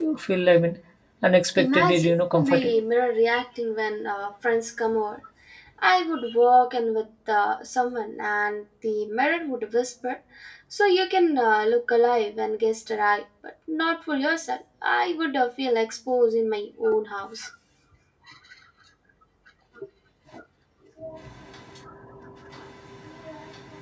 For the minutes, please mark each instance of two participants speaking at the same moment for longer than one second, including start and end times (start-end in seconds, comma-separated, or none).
1.6-2.8